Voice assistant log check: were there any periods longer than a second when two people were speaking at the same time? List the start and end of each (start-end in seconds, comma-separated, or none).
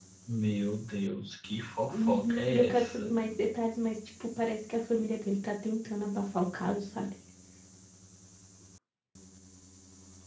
1.9-3.1